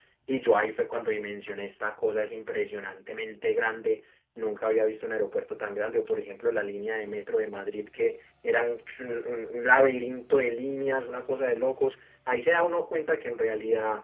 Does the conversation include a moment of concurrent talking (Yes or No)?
No